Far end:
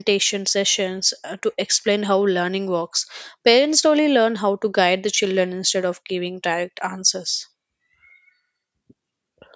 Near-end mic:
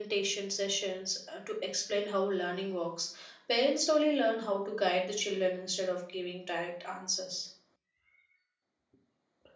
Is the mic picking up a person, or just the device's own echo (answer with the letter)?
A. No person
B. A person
A